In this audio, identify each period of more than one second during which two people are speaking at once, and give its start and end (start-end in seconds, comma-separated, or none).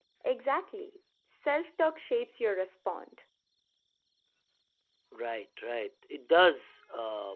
none